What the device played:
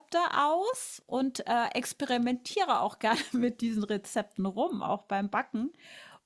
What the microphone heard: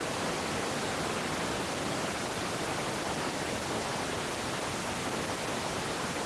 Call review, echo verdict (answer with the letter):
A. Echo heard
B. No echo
B